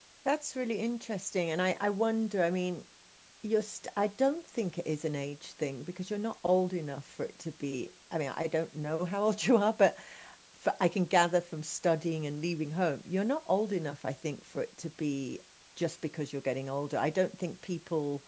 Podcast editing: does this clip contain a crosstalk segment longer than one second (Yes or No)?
No